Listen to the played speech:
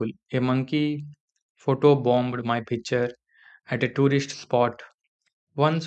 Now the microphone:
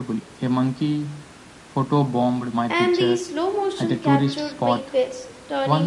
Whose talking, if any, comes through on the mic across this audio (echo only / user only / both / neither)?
both